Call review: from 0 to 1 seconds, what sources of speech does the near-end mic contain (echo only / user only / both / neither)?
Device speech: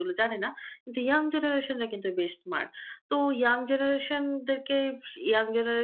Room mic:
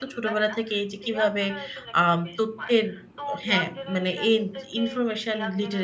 both